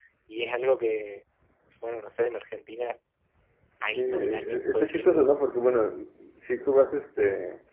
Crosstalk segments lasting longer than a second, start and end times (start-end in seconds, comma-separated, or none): 3.9-5.3